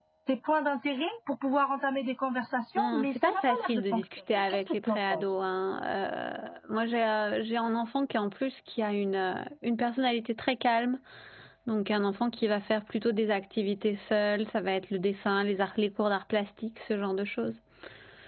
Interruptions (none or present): present